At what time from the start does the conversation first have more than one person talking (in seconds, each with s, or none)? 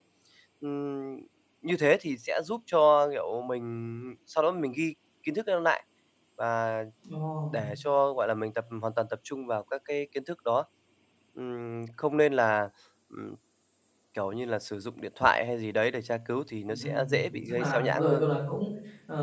16.7 s